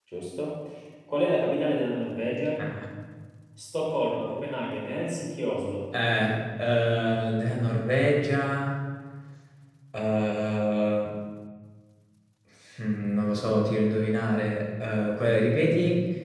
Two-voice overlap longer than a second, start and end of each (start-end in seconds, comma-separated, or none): none